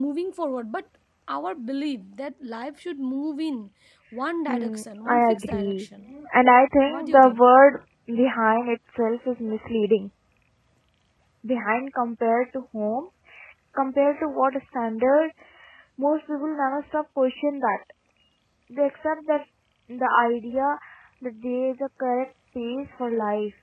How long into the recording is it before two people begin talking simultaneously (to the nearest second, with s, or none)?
4 s